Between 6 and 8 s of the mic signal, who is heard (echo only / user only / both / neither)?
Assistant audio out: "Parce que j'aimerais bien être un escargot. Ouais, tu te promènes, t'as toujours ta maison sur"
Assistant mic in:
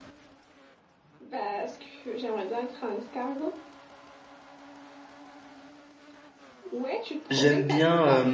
both